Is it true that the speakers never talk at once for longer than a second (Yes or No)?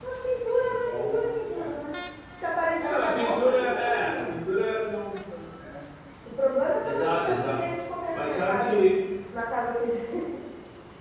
No